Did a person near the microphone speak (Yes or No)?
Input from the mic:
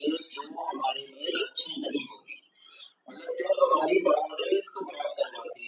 No